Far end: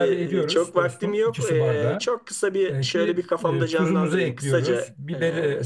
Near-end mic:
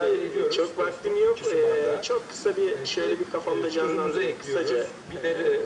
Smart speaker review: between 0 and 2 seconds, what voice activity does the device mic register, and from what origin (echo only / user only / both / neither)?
echo only